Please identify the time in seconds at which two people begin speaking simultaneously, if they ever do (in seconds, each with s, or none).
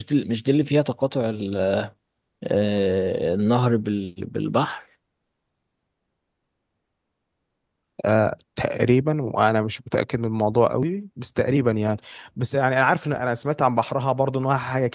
none